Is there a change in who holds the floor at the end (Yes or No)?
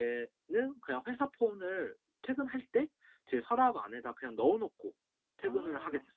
Yes